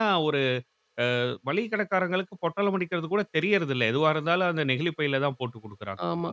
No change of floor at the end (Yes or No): No